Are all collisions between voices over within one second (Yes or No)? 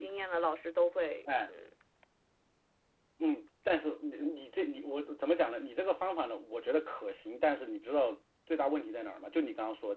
Yes